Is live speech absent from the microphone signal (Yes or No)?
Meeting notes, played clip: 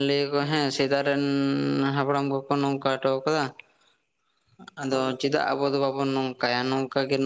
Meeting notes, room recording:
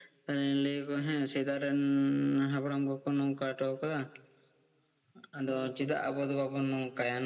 Yes